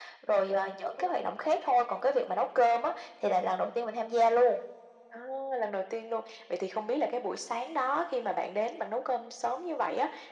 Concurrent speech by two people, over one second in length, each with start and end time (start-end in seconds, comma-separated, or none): none